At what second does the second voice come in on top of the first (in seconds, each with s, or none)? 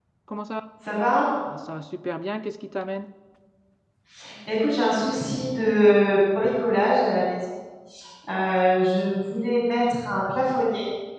none